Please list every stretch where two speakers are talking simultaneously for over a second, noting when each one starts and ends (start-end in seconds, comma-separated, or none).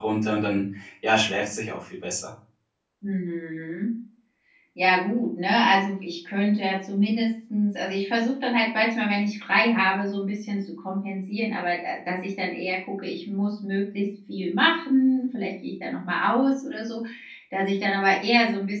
none